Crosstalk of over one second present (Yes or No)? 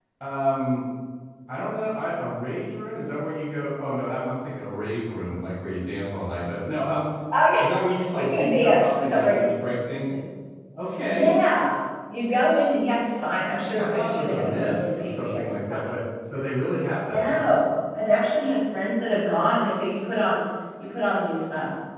Yes